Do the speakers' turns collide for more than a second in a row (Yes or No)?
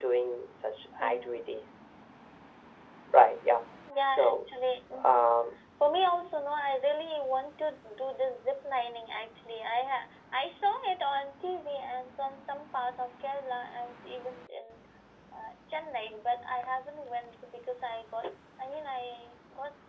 No